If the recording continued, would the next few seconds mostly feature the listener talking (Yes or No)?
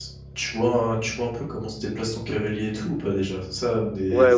Yes